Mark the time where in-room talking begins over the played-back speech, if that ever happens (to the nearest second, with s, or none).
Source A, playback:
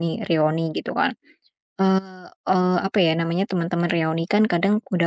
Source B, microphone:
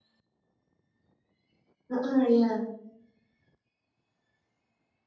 2 s